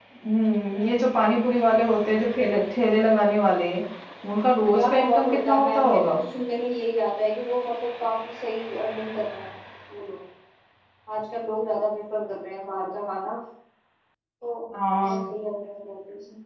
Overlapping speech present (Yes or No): Yes